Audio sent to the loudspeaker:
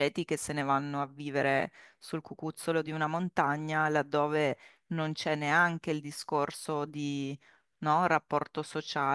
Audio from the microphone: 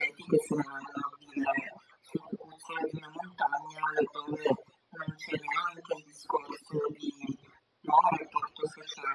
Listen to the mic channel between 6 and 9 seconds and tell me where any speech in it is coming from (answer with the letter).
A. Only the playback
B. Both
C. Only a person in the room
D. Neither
A